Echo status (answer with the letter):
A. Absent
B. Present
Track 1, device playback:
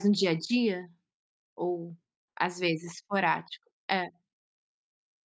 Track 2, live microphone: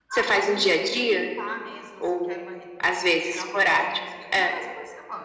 B